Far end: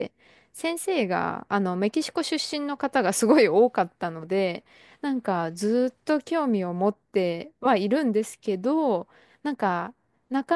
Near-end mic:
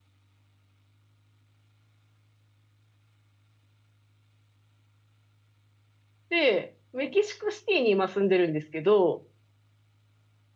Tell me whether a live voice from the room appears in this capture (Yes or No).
Yes